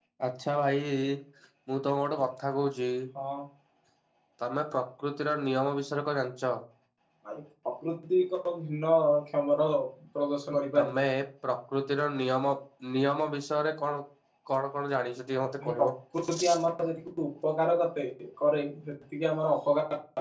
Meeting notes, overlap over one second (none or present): none